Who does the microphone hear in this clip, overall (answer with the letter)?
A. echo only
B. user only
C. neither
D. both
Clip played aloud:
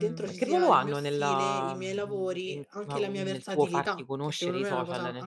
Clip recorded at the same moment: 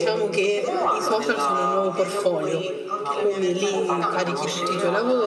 D